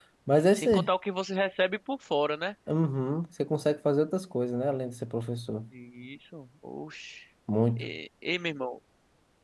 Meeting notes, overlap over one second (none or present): none